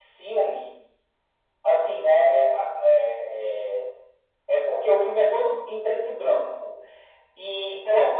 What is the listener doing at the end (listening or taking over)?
listening